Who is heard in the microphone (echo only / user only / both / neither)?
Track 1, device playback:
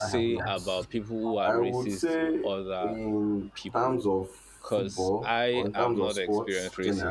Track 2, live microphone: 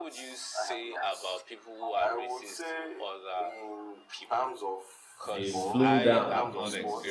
both